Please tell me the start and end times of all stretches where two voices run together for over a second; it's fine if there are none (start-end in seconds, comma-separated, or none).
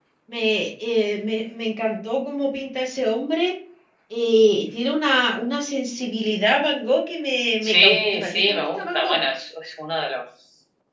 7.6-9.2